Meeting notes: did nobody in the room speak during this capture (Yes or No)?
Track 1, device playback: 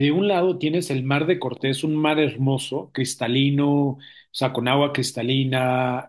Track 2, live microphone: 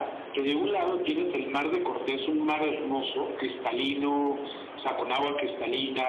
Yes